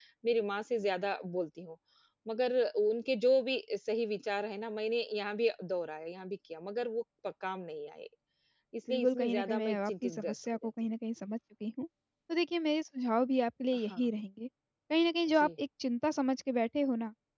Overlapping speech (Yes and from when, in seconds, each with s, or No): Yes, from 8.9 s